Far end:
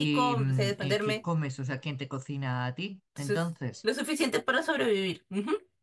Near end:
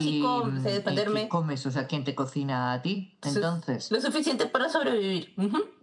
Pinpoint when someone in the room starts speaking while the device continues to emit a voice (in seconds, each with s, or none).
none